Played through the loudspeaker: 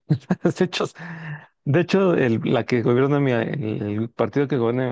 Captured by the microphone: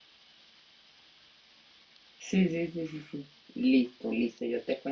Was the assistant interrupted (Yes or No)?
Yes